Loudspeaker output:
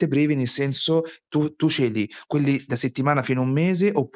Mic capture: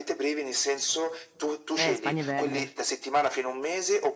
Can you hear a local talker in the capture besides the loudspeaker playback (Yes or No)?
Yes